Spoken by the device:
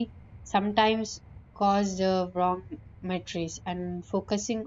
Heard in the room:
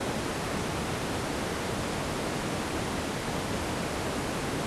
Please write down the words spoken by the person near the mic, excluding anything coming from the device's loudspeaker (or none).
none